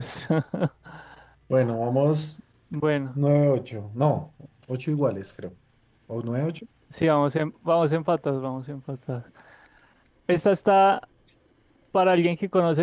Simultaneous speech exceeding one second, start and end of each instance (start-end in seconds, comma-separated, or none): none